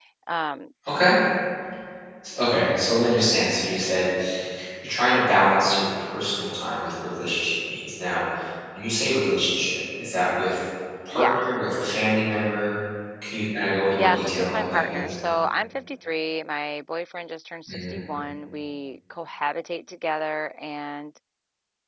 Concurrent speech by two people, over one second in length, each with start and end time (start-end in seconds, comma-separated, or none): 14.0-15.2